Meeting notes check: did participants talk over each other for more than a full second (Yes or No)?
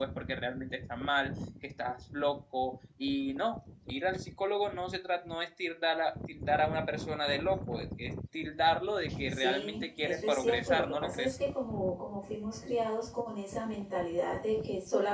Yes